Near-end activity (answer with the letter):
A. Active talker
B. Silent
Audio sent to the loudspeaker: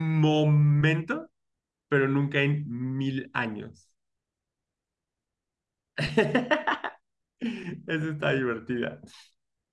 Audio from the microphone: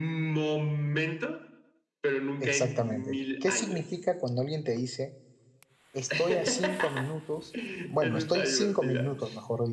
A